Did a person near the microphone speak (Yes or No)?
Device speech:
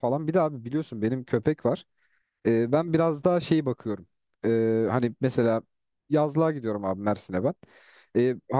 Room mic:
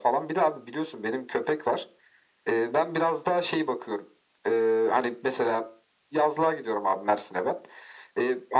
No